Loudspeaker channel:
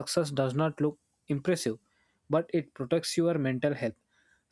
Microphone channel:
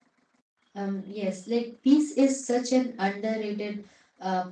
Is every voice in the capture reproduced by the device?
No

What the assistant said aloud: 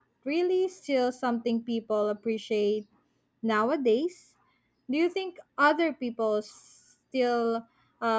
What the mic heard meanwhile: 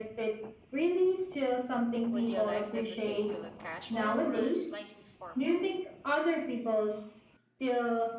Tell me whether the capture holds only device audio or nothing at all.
No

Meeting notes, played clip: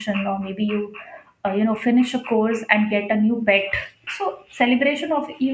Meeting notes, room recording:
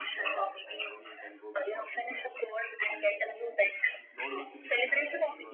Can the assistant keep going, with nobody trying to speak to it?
No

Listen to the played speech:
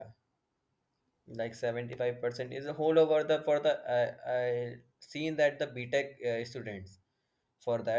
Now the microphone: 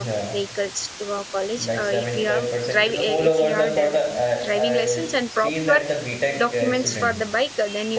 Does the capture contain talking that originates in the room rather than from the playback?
Yes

